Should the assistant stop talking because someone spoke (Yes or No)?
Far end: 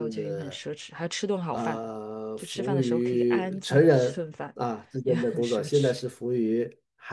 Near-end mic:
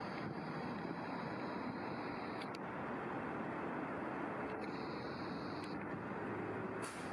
No